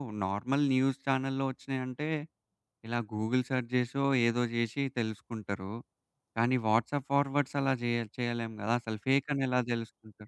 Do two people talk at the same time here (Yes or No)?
No